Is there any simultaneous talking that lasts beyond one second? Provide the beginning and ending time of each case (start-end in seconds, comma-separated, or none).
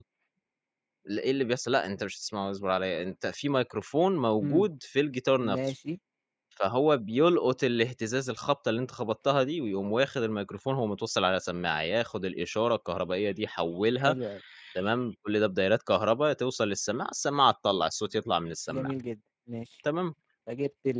none